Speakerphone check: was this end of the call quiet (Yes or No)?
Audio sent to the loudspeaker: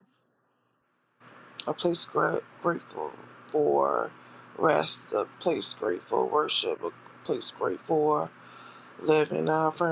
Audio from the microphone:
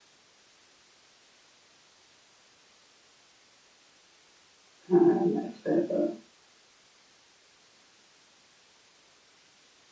No